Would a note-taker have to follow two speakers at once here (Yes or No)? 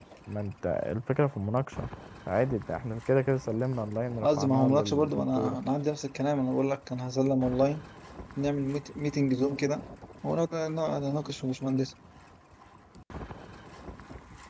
Yes